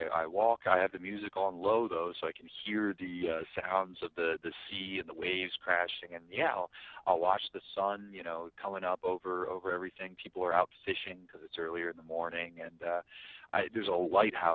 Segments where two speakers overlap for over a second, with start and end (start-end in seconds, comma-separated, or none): none